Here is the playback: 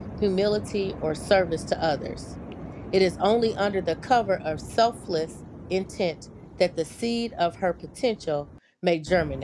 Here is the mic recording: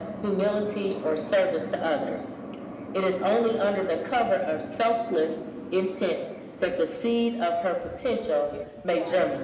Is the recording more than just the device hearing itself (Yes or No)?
Yes